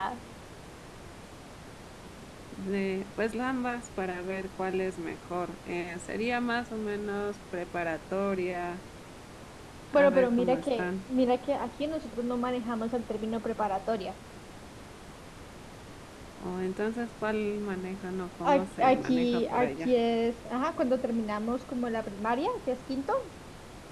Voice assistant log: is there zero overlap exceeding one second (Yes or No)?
No